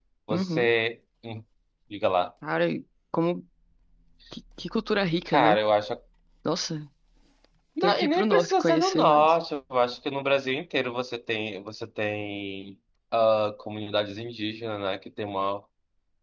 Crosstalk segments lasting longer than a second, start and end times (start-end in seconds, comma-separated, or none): 7.8-9.3